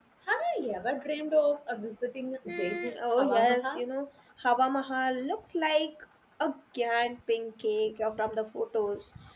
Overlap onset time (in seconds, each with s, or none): 2.4 s